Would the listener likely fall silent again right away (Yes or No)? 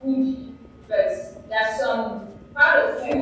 Yes